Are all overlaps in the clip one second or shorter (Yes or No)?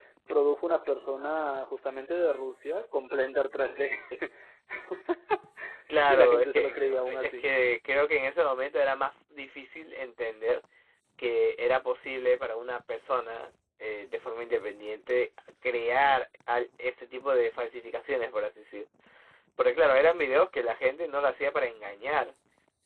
No